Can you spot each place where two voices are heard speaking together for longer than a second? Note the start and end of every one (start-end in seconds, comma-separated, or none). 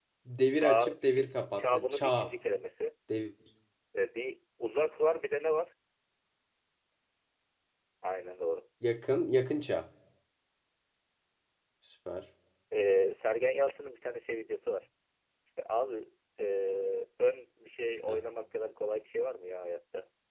0.5-2.3